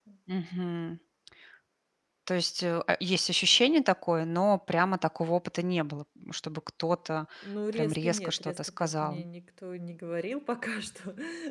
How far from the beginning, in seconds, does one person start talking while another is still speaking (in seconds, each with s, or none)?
7.7 s